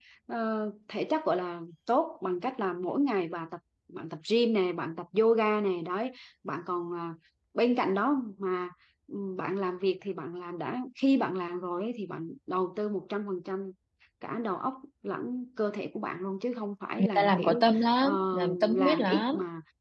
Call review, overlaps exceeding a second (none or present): present